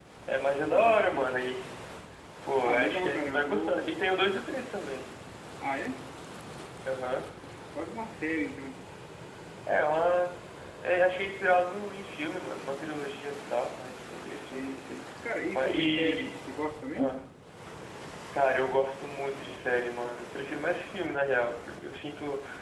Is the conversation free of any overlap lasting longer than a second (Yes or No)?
No